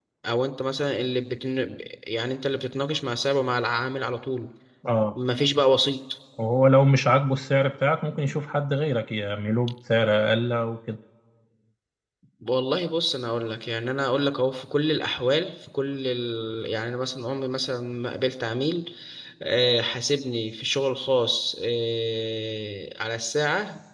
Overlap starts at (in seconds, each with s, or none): none